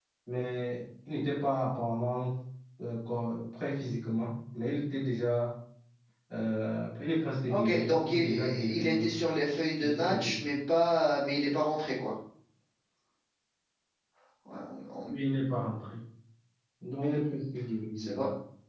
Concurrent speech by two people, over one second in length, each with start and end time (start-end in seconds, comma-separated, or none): 7.5-9.1